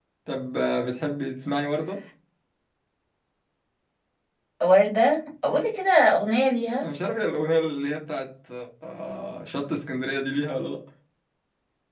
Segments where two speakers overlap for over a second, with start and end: none

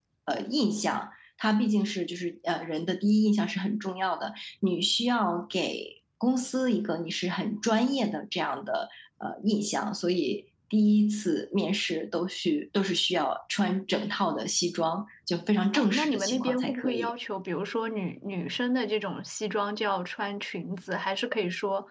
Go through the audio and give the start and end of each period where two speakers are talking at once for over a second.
15.7-17.1

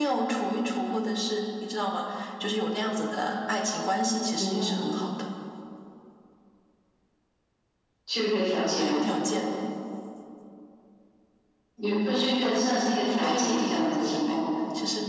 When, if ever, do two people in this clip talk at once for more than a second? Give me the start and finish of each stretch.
13.2-14.5

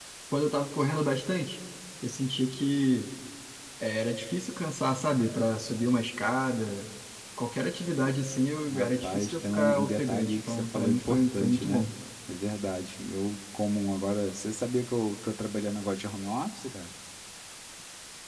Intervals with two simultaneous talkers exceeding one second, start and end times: 8.7-11.9

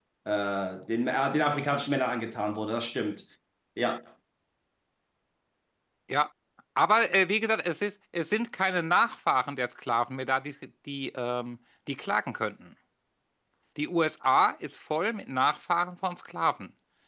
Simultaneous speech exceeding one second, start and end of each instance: none

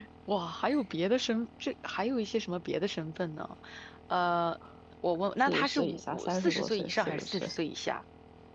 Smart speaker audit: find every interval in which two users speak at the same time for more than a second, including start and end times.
5.4-7.5

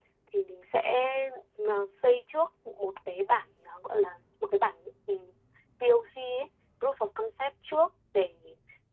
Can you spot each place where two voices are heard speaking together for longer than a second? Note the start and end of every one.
none

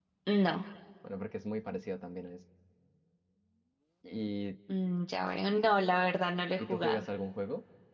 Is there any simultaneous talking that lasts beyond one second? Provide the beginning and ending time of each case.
none

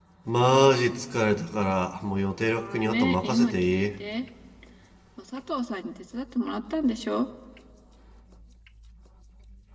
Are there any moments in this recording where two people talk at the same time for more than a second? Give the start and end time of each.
2.5-3.9

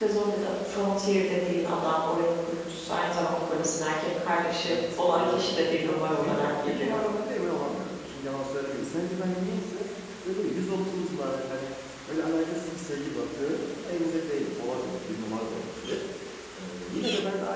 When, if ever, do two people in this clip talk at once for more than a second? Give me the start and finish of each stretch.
4.7-7.0

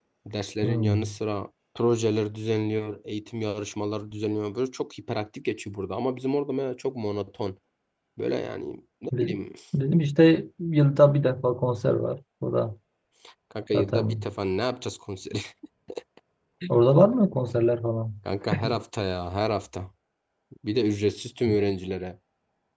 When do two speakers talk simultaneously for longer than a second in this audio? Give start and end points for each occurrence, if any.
none

